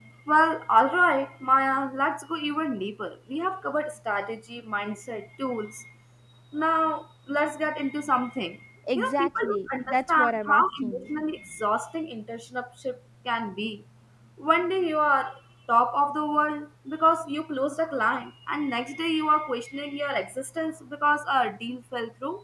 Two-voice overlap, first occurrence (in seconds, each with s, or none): 8.9 s